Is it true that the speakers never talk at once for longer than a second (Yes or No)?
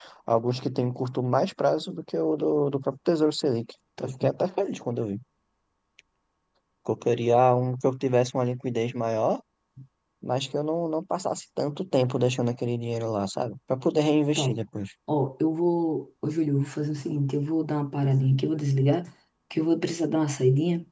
Yes